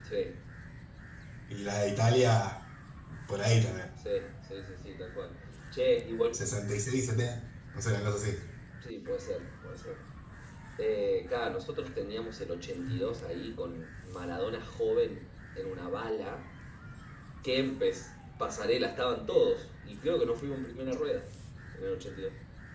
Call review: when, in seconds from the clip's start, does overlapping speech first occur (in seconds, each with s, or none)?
none